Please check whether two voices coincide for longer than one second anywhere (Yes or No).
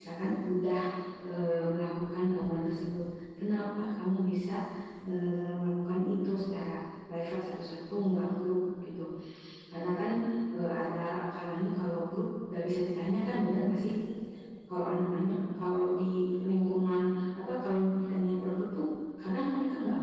No